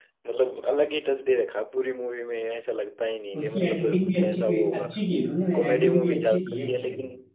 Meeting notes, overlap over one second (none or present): present